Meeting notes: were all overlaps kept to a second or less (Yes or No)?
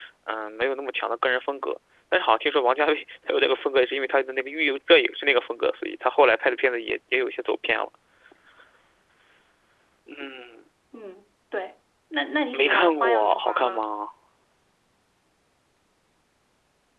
No